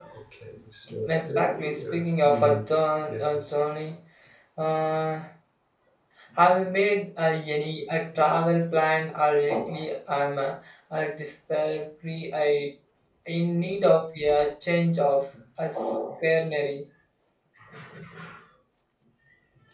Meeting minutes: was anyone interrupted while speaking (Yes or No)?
Yes